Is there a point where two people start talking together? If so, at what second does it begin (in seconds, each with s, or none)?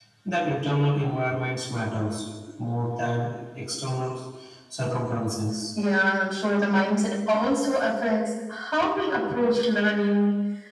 none